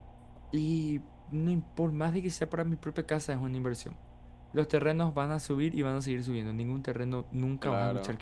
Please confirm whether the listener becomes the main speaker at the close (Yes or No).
Yes